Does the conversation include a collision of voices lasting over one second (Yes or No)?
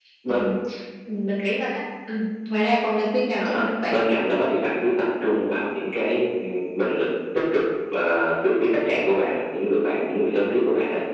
No